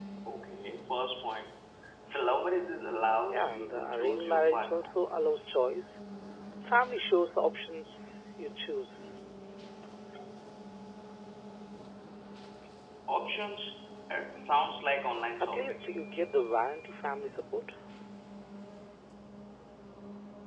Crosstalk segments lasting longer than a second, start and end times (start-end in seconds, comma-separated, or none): 3.3-4.9